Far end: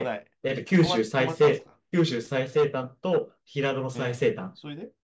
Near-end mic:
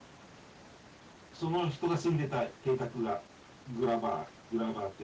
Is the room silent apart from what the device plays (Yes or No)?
No